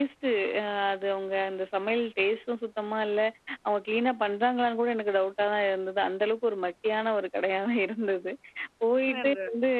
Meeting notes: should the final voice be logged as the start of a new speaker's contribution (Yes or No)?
No